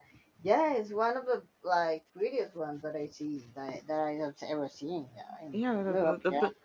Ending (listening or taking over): taking over